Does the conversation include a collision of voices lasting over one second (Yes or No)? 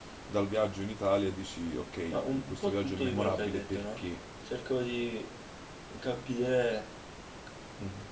Yes